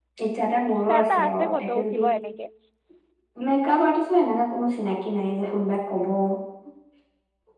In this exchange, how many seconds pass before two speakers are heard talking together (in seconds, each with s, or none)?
0.7 s